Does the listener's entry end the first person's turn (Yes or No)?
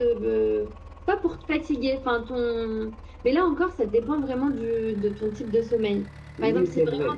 Yes